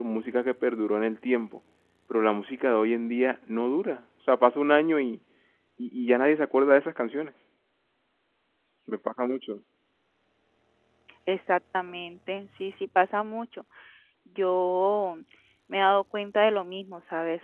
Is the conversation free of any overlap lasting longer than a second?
Yes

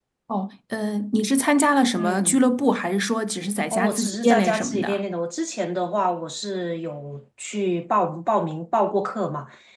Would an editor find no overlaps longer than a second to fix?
No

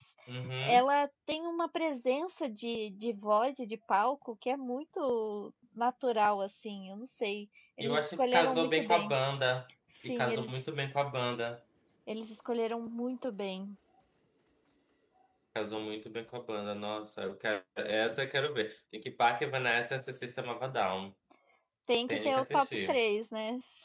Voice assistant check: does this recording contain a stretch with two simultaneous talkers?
Yes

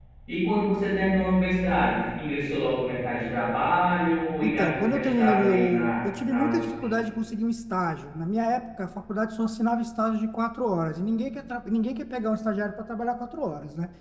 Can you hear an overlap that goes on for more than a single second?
Yes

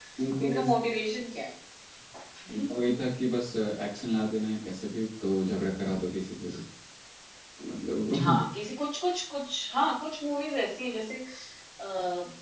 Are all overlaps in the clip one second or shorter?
Yes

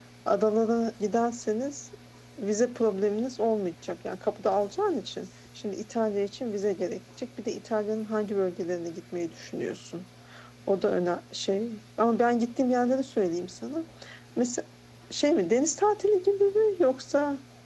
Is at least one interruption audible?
No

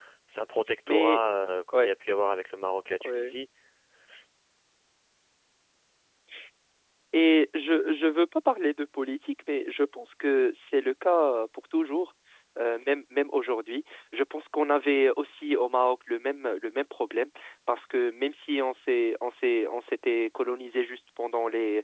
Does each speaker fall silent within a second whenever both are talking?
Yes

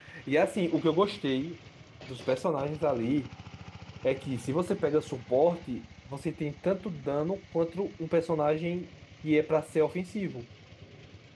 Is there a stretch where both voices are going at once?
No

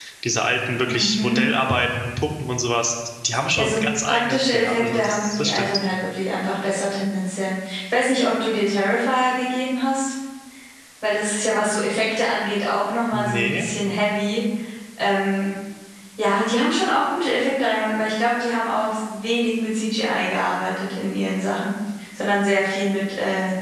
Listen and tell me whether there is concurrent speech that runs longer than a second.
Yes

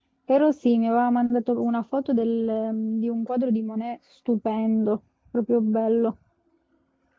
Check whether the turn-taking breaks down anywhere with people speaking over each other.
No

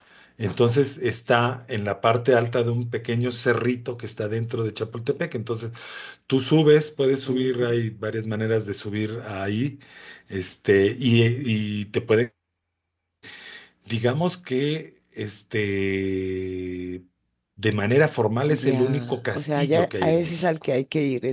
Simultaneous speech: Yes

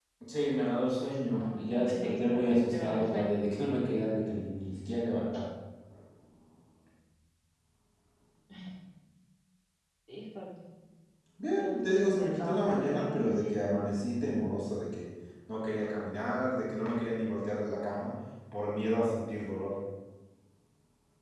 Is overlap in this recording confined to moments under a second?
No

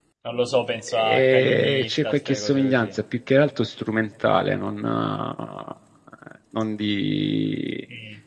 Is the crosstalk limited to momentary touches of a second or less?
No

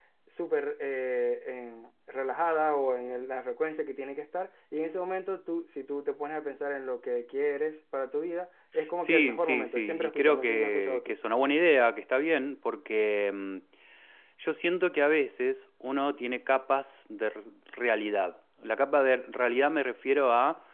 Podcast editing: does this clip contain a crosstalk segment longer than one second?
Yes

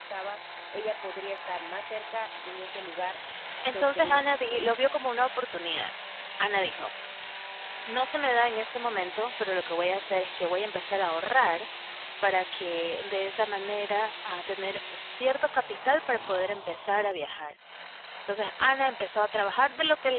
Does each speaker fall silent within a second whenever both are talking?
No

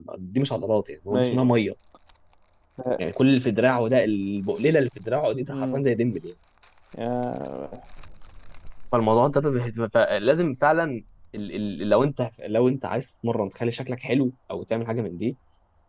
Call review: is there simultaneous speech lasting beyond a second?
No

